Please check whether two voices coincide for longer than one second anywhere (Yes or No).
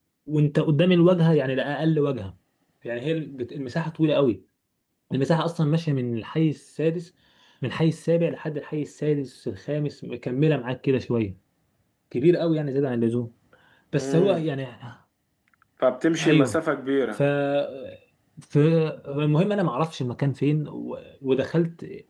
No